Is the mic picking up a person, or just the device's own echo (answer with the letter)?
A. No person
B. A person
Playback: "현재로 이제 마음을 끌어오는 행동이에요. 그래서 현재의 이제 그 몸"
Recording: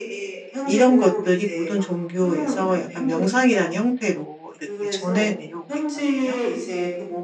B